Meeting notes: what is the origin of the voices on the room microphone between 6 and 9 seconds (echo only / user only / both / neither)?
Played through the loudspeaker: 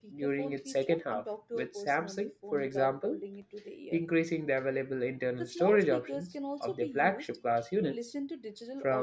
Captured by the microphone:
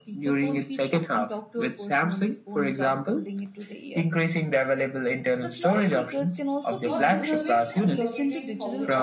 both